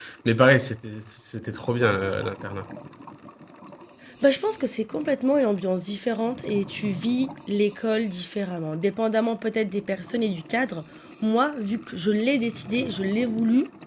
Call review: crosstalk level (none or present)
none